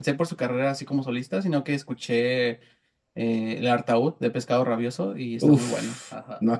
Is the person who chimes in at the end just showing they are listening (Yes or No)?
No